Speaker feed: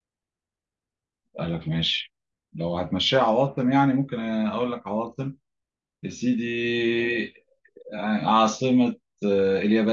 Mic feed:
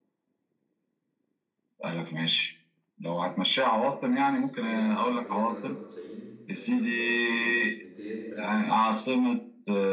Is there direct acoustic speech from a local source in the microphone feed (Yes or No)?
Yes